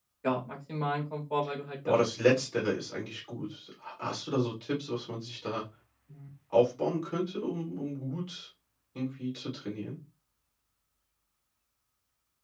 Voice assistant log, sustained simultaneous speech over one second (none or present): none